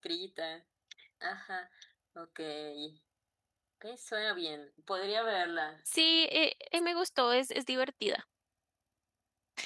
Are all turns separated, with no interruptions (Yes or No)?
Yes